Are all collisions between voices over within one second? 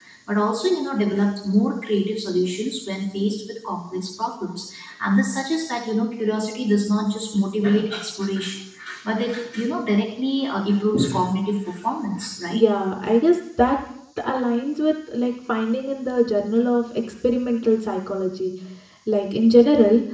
Yes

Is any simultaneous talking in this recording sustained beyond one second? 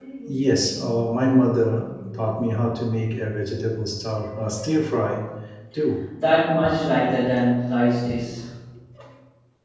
No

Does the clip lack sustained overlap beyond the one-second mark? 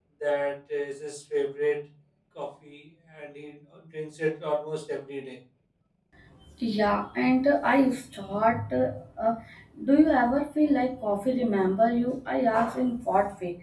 Yes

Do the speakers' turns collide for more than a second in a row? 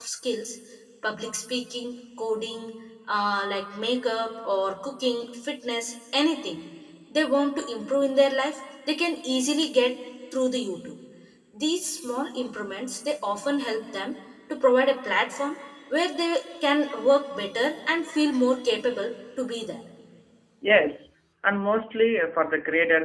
No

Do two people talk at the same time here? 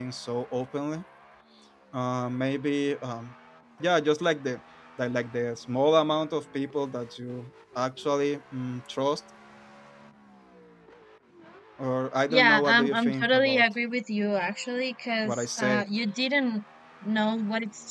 Yes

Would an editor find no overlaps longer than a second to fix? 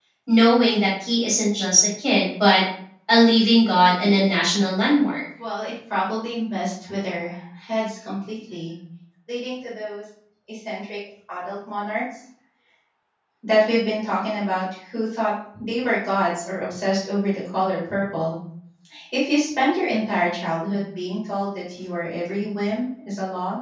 Yes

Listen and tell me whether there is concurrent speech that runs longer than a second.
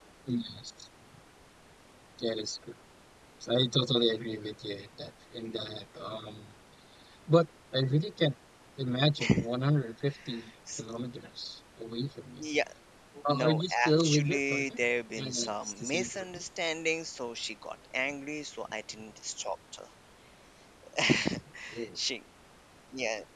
Yes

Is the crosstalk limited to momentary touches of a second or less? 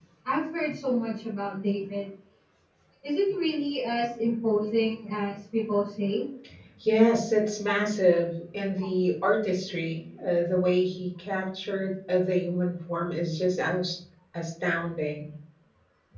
Yes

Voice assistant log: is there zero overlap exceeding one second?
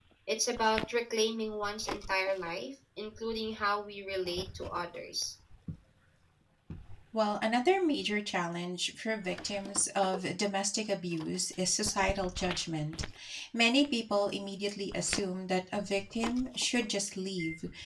Yes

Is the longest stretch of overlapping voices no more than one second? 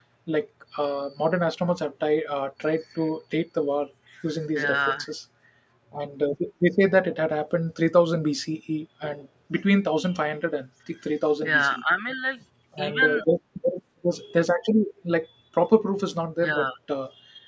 Yes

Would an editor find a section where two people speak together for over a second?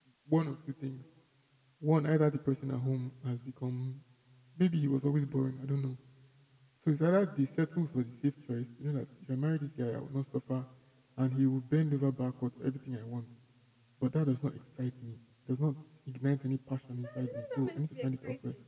Yes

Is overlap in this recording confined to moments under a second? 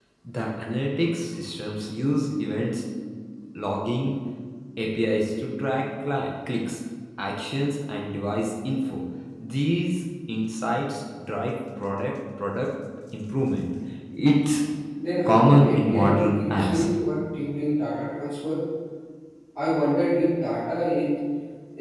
No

